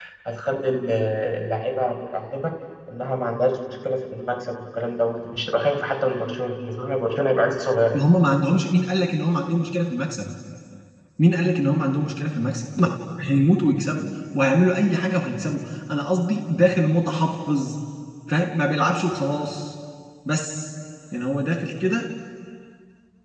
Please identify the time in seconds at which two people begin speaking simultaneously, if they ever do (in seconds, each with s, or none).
none